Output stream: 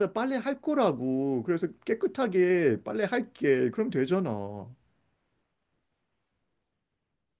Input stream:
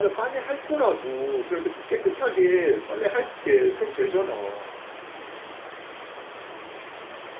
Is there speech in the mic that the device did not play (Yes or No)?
No